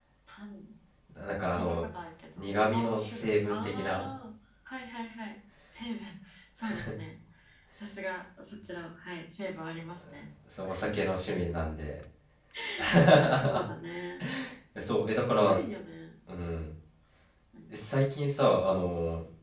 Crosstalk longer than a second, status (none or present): present